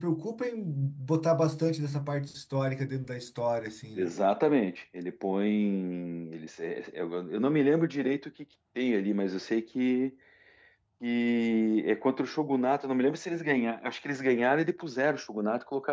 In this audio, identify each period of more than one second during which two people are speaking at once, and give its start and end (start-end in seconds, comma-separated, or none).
none